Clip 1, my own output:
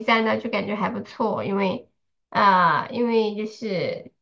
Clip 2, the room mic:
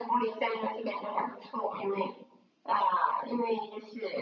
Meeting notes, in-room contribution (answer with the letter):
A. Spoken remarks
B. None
B